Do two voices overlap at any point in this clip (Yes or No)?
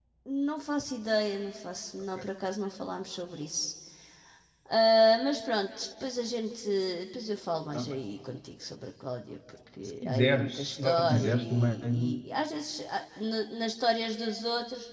Yes